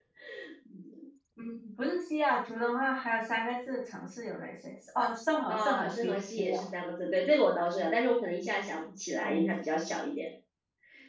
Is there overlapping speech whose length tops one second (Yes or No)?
Yes